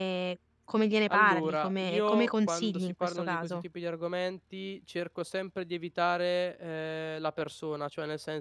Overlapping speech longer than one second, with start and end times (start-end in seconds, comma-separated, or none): 1.1-3.6